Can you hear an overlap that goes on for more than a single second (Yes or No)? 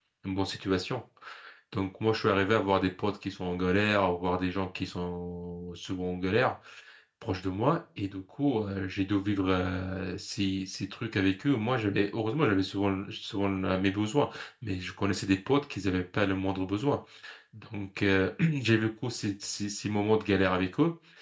No